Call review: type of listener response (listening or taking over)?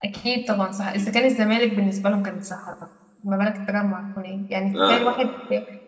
listening